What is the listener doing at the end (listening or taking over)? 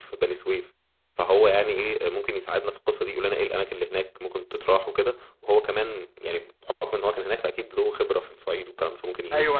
taking over